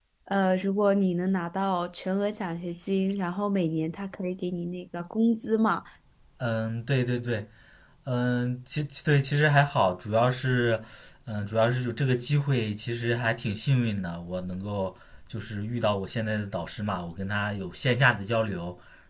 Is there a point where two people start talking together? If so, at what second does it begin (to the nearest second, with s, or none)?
none